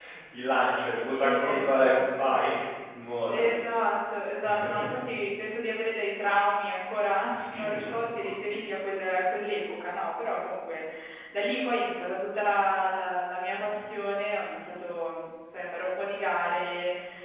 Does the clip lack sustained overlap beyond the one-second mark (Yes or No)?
No